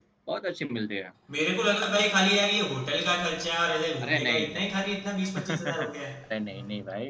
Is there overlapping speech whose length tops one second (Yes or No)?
Yes